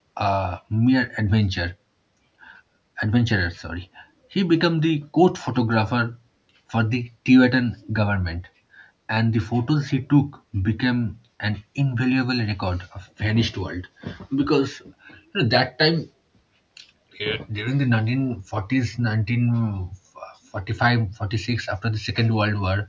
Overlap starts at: none

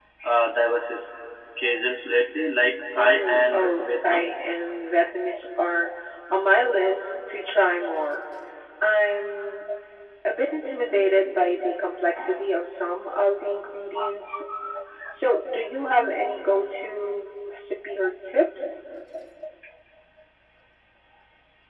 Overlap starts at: 3 s

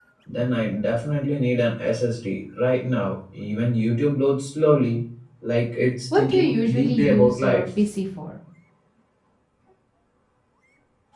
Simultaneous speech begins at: 6 s

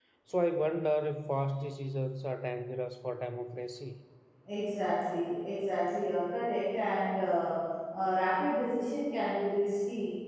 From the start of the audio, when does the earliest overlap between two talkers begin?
none

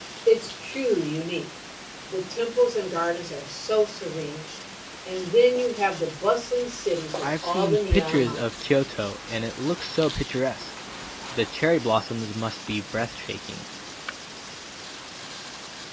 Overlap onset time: 7 s

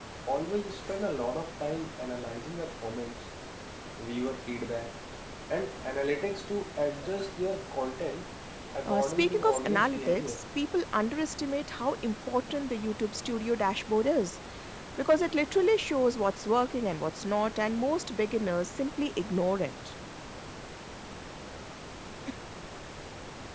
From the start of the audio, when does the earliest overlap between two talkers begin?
9 s

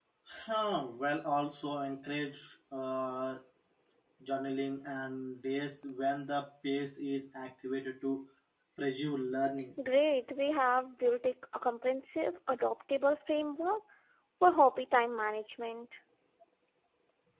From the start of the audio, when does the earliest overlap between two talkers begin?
none

